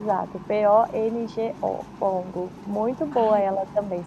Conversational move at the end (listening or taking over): listening